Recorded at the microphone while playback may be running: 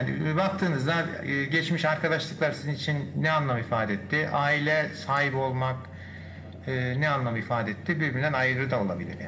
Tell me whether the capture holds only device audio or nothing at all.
Yes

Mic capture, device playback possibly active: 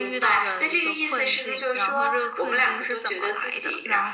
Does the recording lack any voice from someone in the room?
Yes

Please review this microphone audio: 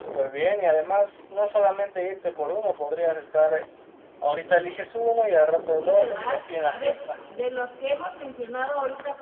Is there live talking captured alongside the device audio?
Yes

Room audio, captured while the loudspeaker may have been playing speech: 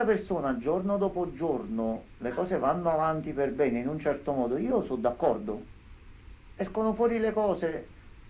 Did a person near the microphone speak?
No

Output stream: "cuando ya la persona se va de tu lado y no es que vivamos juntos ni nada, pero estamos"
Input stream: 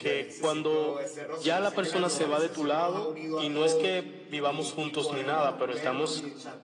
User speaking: Yes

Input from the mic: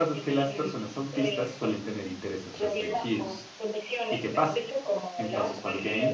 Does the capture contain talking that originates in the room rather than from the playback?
Yes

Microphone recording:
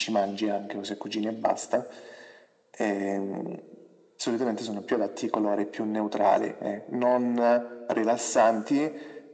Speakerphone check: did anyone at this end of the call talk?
No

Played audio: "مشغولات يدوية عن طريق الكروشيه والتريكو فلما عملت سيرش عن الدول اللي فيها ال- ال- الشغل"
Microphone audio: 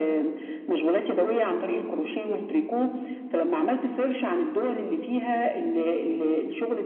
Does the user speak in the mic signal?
No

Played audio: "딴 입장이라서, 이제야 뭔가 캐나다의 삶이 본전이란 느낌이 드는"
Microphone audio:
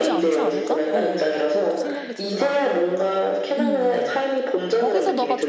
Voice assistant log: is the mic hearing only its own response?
No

